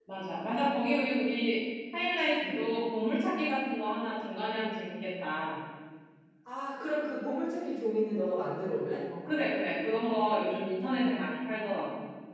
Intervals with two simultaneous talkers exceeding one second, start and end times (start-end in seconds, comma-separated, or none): none